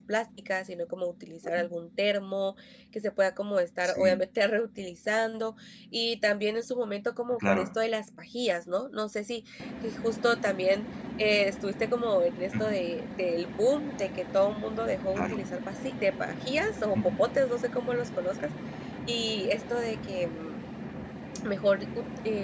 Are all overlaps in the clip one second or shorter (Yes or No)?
Yes